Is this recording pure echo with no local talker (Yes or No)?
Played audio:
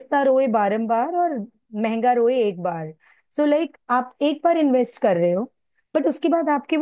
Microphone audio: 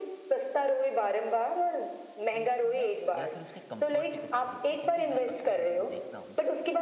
No